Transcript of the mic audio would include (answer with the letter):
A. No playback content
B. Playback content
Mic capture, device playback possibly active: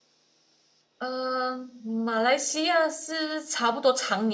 A